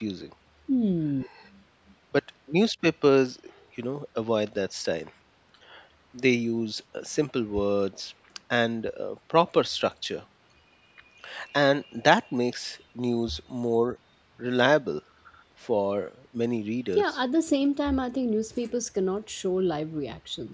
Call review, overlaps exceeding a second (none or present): none